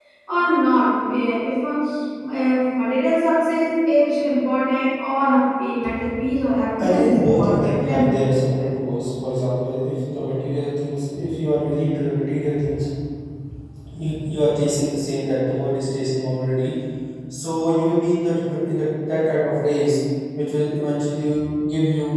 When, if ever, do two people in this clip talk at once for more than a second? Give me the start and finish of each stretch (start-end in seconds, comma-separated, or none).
6.8-8.1